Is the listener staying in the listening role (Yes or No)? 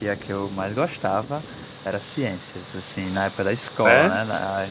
Yes